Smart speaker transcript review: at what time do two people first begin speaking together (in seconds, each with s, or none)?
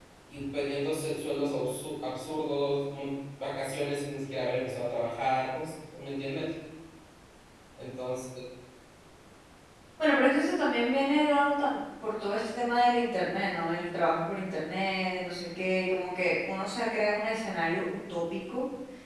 none